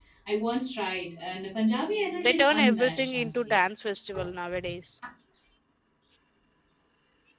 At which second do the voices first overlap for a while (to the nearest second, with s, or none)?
2 s